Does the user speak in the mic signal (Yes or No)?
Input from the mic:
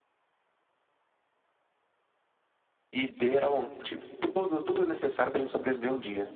Yes